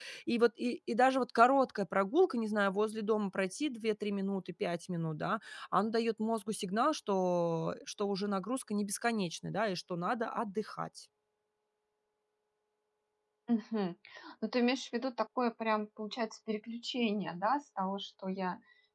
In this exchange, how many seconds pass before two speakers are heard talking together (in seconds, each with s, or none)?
none